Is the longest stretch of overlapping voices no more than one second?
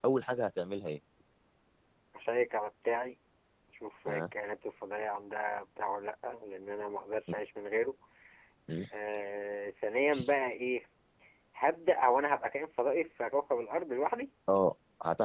Yes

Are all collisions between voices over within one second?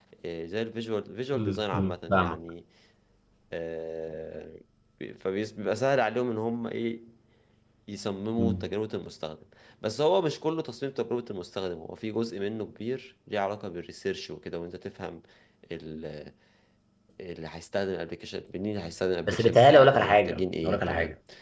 No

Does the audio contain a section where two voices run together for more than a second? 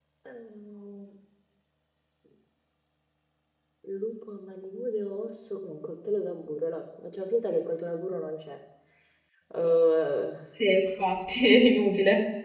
No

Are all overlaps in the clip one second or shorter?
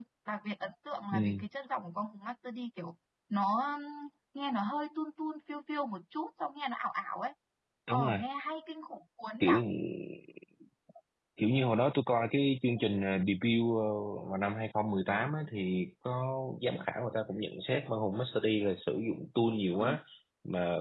Yes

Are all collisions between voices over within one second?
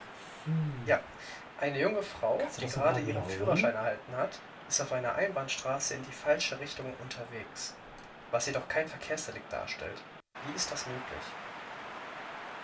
No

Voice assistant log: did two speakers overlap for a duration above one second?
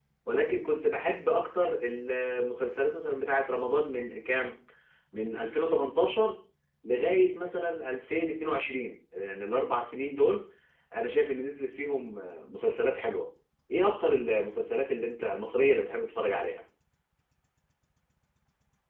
No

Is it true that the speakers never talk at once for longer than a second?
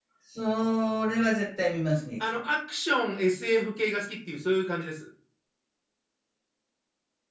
Yes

